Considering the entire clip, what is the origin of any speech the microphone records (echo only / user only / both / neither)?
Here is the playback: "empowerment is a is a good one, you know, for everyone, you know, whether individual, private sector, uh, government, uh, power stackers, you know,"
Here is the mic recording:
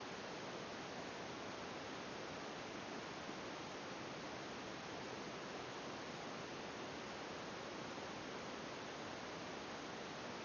neither